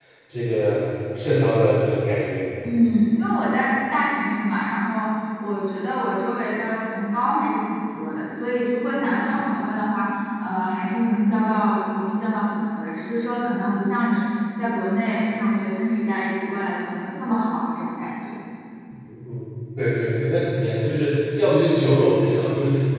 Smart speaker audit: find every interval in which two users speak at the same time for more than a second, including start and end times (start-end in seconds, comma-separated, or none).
none